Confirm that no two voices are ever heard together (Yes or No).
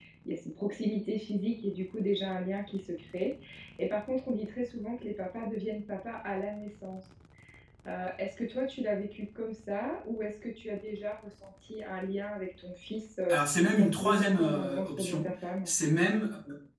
No